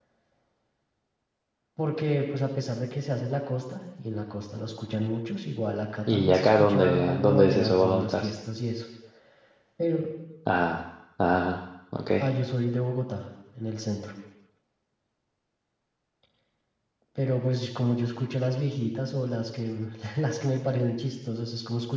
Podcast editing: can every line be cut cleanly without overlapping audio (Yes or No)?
No